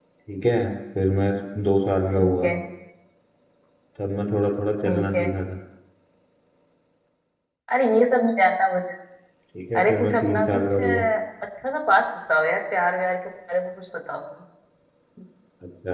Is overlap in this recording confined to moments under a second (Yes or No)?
No